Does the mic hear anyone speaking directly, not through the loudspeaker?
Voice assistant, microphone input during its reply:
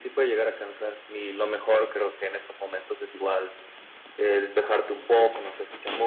No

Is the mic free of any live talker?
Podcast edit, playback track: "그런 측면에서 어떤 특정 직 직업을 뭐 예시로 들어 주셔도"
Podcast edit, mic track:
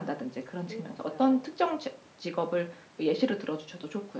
No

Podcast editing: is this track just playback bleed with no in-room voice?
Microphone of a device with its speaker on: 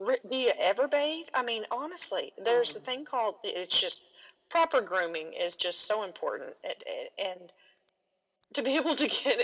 No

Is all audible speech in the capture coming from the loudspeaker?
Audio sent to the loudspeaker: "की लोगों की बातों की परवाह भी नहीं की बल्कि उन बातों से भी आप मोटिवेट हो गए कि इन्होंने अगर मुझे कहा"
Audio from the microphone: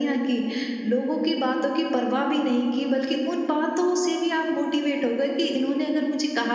Yes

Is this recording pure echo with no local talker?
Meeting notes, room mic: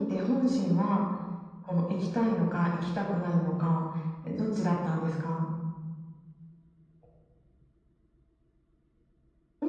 Yes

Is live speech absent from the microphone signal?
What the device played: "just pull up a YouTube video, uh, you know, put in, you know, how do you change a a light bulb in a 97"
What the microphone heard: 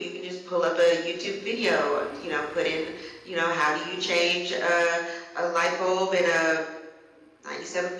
Yes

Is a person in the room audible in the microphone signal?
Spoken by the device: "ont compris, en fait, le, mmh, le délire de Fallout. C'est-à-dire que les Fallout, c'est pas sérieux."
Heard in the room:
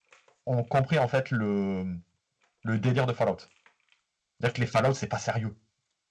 No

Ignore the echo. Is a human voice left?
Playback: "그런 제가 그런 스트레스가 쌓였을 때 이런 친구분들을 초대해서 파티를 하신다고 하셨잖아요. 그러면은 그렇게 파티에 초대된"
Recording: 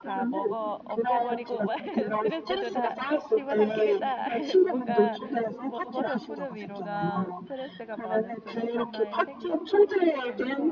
Yes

